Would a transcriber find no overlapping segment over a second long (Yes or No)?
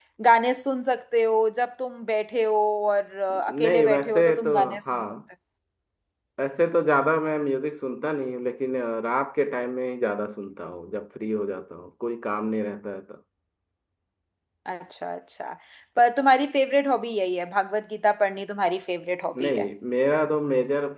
No